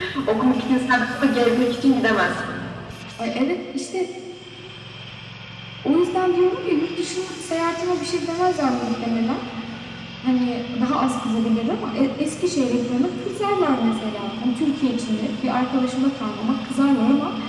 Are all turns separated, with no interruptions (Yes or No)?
Yes